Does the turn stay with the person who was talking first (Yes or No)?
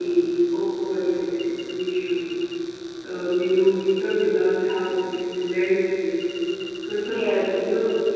Yes